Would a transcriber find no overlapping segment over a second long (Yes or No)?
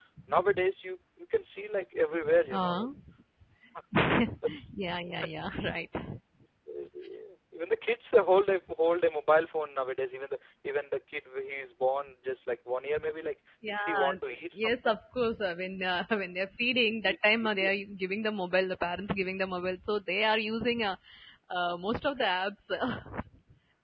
No